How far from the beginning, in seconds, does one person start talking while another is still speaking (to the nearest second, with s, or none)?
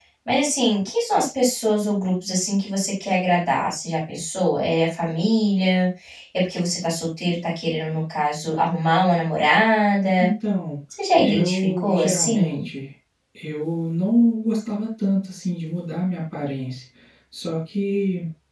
11 s